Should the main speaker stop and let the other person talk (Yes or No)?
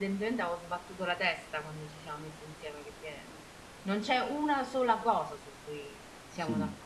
Yes